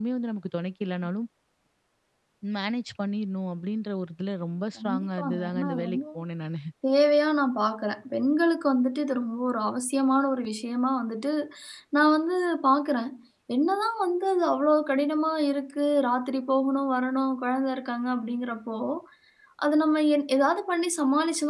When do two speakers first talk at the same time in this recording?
4.8 s

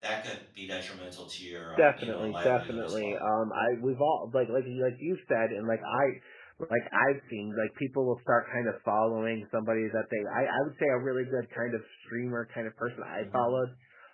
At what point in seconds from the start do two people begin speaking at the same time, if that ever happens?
1.8 s

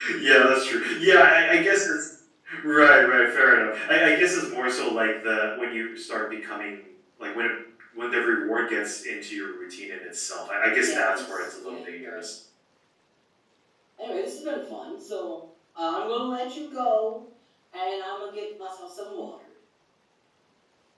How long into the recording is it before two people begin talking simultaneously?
10.8 s

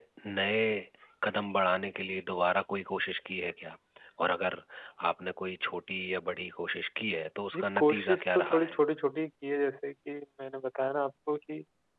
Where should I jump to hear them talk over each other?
7.5 s

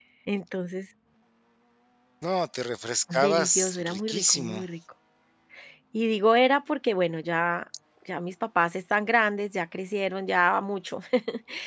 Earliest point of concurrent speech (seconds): 3.1 s

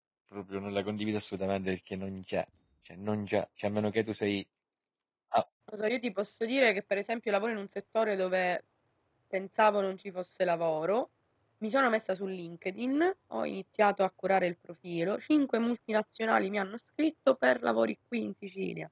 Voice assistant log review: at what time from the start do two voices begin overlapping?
none

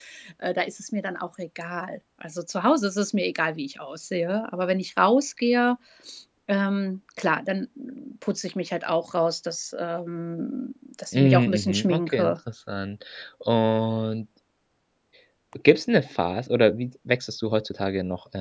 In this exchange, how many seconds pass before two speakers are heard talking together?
11.1 s

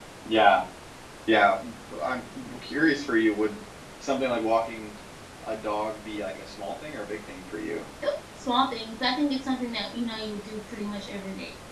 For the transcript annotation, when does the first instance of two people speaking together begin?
none

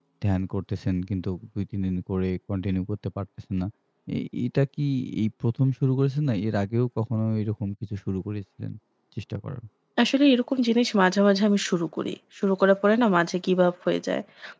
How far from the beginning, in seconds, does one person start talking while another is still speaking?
none

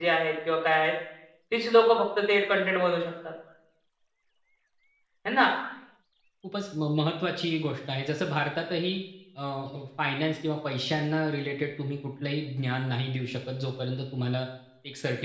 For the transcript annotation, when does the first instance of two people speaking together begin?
none

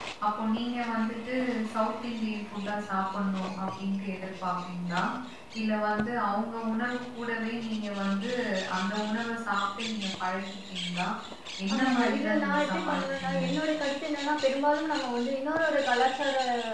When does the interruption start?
11.7 s

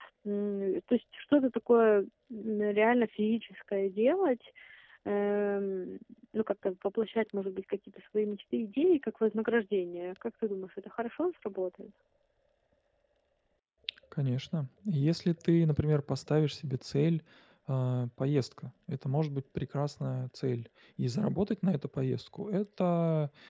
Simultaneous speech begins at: none

